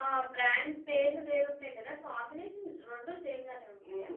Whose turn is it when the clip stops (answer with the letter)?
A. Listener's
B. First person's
A